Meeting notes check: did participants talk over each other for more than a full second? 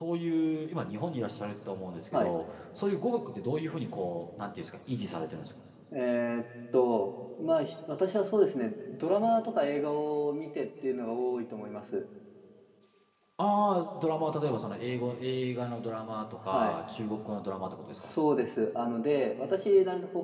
No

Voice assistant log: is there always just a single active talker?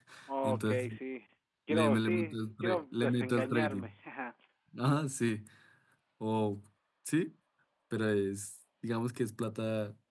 No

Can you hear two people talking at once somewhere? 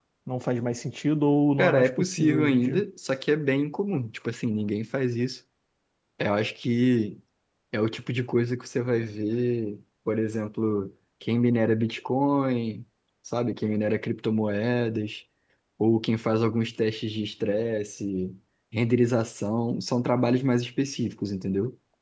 Yes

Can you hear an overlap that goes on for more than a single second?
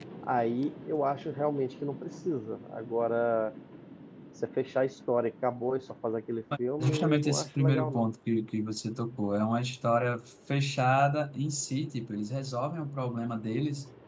Yes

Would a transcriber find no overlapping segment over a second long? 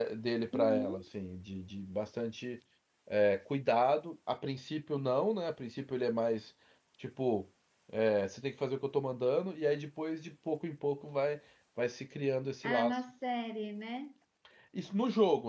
Yes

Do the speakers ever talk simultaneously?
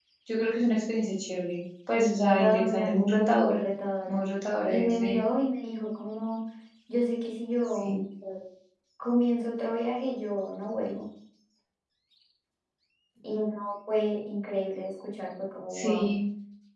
Yes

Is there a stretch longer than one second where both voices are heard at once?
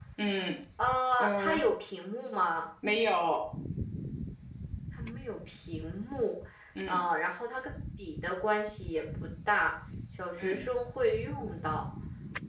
No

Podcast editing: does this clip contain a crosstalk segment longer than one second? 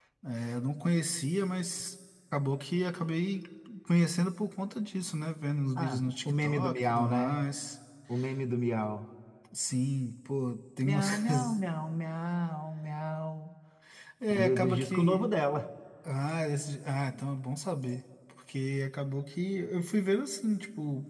Yes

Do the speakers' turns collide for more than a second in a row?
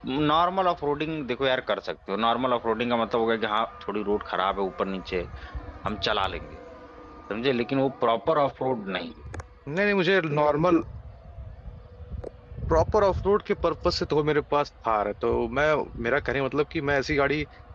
No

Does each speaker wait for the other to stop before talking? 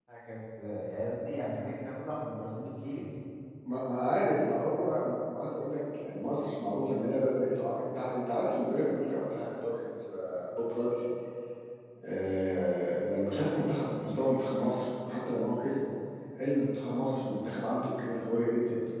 Yes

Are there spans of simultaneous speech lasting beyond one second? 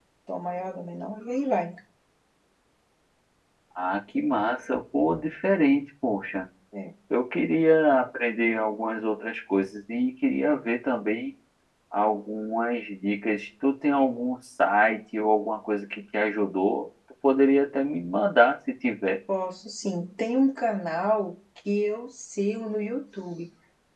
No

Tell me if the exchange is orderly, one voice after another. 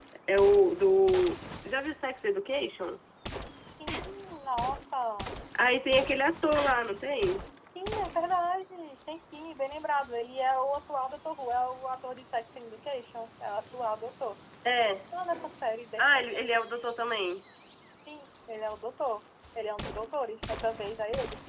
Yes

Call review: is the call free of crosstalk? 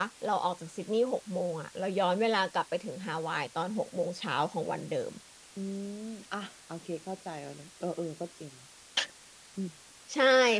Yes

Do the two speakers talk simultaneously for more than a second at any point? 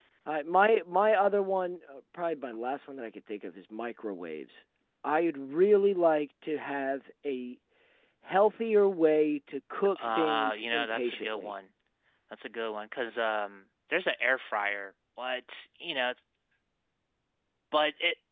Yes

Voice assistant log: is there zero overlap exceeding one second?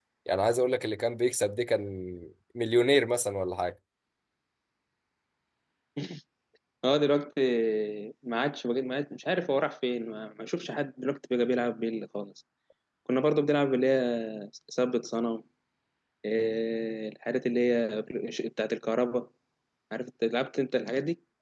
Yes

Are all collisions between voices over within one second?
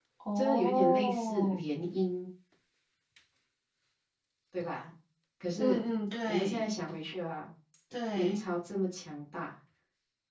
No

